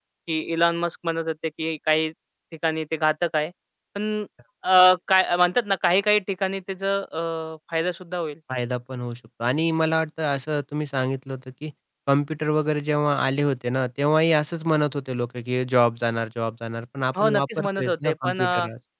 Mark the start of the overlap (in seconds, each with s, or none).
17.1 s